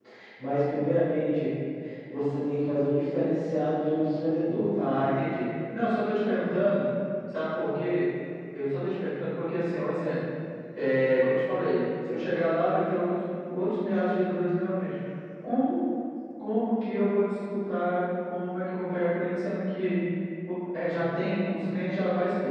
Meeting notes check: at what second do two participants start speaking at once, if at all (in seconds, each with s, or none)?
none